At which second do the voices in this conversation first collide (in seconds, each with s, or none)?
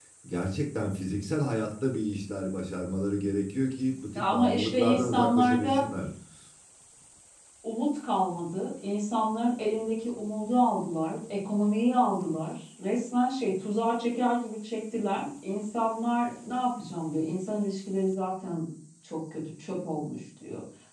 4.2 s